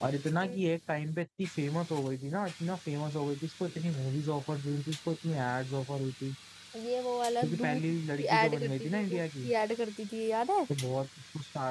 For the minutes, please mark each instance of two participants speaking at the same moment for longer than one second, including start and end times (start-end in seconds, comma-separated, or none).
7.4-9.5